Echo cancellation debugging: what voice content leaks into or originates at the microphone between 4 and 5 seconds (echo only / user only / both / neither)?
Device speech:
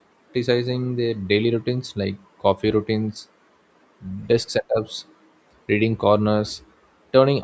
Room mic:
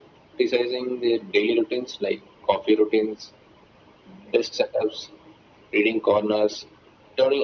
echo only